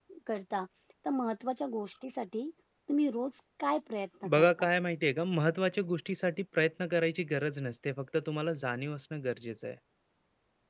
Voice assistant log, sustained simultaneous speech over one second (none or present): none